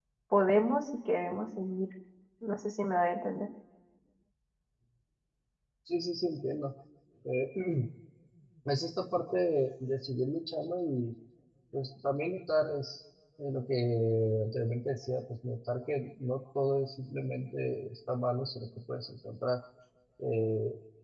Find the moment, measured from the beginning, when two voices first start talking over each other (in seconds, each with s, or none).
none